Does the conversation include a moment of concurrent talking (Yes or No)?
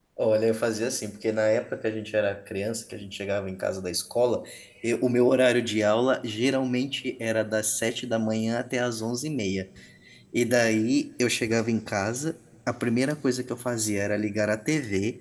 No